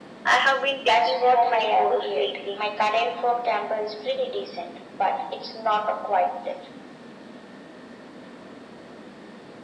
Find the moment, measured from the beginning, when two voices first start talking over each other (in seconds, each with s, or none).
0.8 s